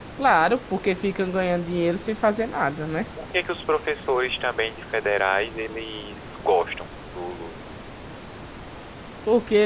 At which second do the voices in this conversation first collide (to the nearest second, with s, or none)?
none